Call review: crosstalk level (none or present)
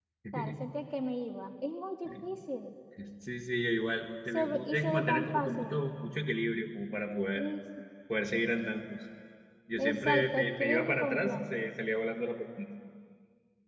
present